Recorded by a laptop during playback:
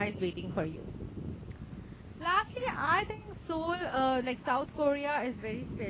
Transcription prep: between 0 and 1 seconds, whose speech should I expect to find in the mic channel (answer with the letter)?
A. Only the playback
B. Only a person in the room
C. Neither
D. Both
B